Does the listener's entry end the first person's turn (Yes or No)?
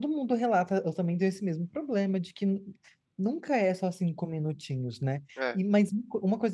No